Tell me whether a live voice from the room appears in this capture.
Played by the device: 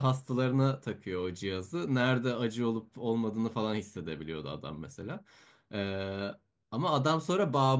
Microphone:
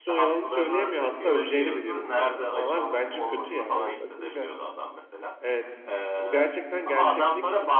Yes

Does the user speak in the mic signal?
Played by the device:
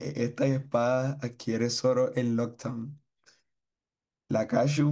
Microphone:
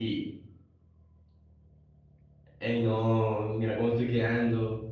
Yes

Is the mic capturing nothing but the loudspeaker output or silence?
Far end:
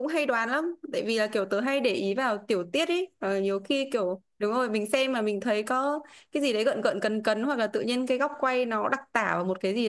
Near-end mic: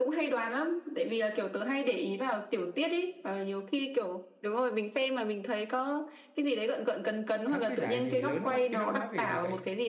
No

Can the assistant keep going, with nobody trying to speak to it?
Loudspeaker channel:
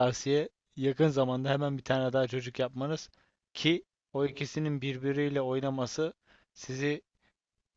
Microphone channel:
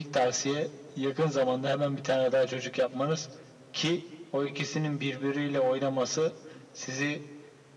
Yes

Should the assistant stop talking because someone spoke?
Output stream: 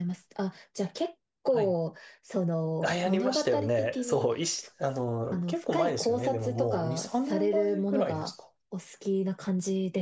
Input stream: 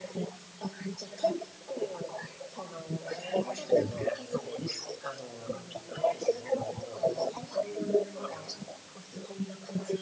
No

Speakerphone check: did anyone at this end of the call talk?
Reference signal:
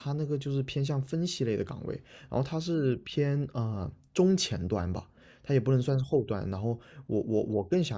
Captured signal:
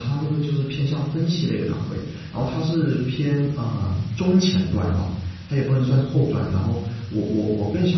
No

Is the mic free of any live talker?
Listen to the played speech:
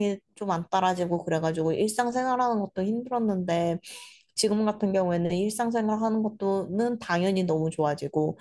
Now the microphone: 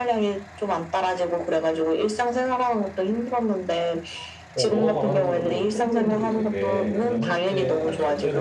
No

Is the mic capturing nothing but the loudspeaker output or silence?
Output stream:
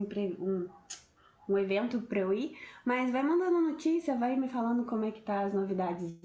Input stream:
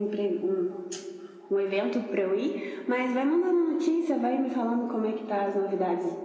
Yes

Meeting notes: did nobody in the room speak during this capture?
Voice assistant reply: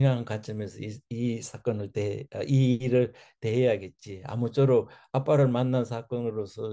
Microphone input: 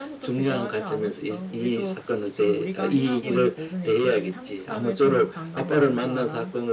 No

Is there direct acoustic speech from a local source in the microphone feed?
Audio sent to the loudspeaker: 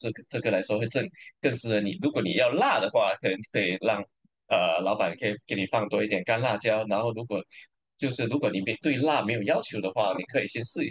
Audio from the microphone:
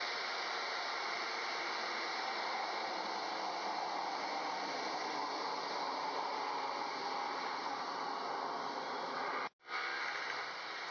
No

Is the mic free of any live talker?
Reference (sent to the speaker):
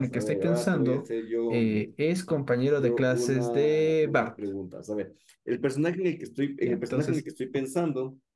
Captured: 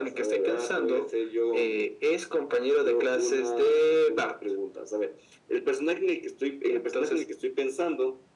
Yes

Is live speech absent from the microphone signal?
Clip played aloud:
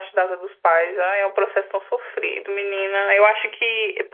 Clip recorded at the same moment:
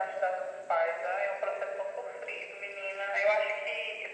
Yes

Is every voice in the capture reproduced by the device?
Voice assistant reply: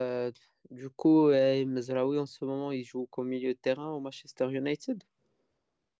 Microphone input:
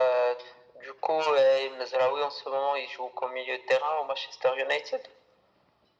Yes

